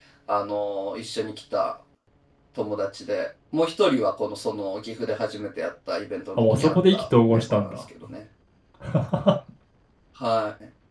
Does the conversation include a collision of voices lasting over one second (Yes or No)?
Yes